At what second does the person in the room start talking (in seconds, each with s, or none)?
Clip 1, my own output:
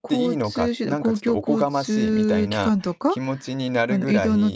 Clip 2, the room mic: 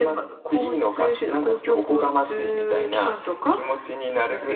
none